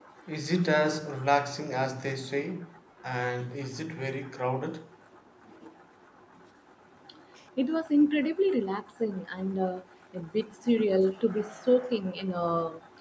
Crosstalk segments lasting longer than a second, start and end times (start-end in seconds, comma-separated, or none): none